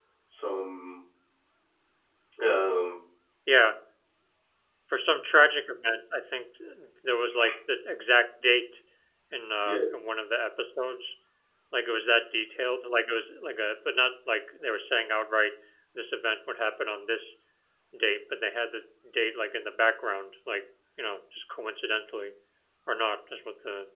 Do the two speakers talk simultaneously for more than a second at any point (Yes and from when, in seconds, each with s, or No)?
No